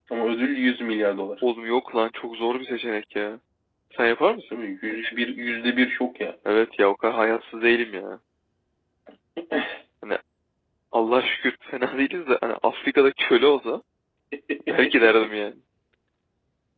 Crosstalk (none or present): none